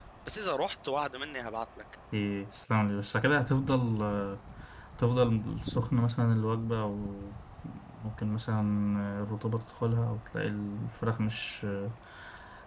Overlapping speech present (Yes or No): No